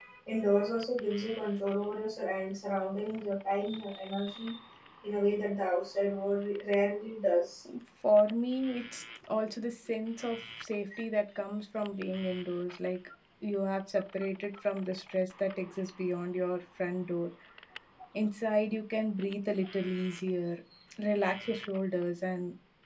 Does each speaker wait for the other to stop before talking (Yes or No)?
Yes